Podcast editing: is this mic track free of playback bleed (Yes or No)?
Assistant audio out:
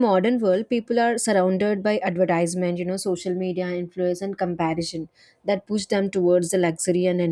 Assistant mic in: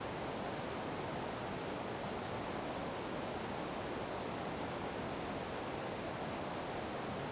Yes